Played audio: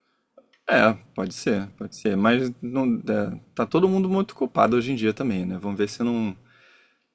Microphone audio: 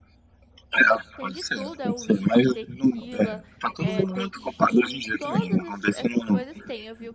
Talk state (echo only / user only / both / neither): both